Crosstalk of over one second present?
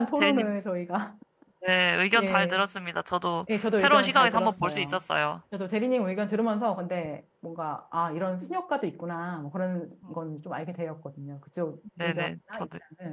Yes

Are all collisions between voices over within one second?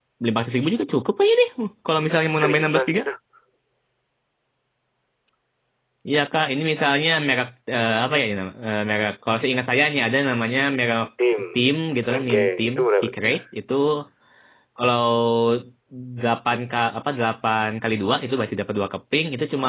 No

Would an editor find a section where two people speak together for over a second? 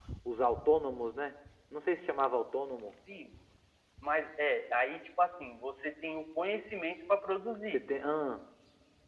No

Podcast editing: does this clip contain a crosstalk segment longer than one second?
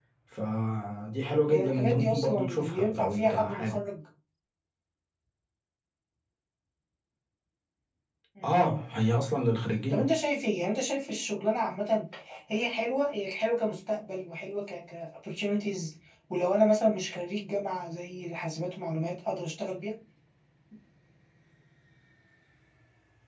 Yes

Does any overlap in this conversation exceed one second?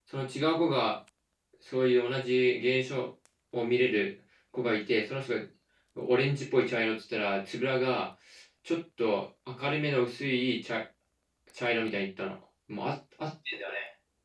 No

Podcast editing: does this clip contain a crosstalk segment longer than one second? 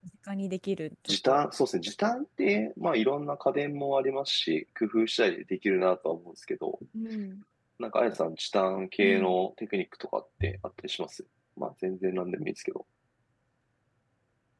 No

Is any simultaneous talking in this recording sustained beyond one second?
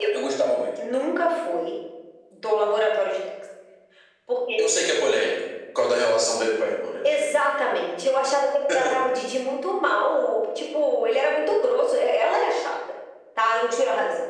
No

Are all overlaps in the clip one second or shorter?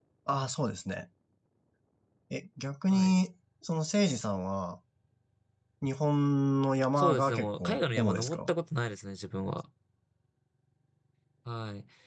No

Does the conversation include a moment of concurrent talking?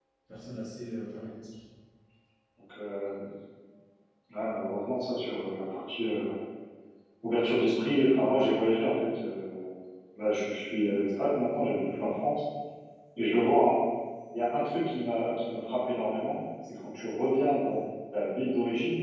No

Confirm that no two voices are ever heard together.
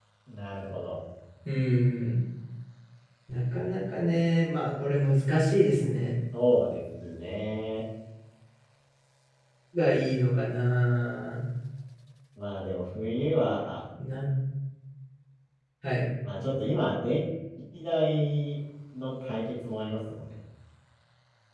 Yes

